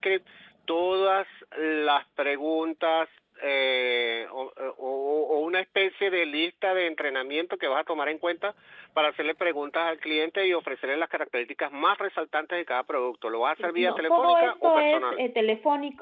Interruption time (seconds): 13.6 s

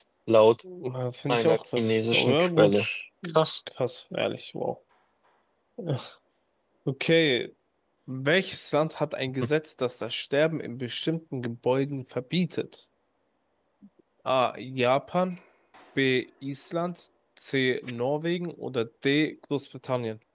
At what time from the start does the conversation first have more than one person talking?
1.3 s

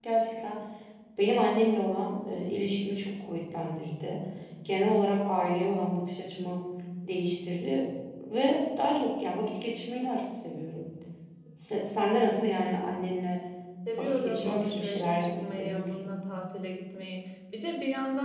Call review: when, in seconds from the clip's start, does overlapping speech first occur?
14.0 s

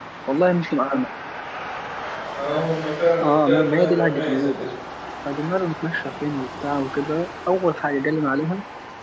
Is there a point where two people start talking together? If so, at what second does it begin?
3.2 s

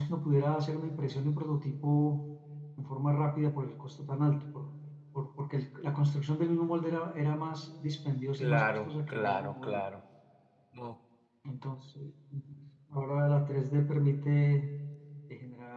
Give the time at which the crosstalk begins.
8.4 s

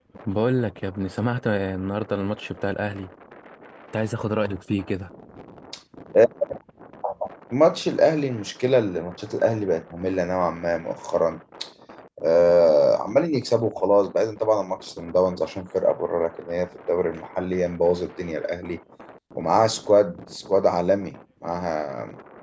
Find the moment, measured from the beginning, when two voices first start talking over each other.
none

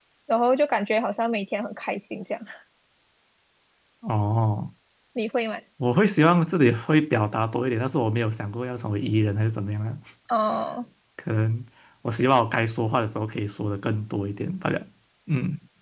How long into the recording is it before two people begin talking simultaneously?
none

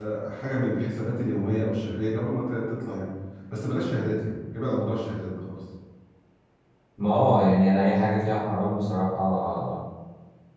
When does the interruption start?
none

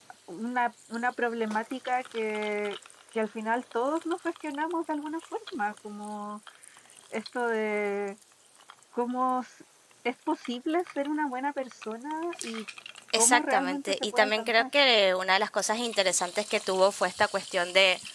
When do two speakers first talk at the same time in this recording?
13.1 s

